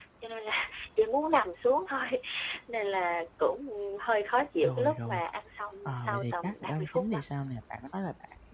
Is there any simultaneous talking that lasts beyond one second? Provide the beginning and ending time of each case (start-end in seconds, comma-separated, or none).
5.8-7.2